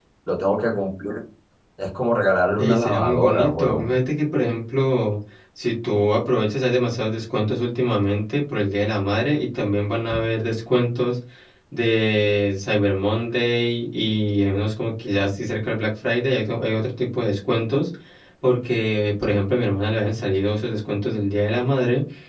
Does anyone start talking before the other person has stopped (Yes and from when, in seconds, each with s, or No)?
Yes, from 2.5 s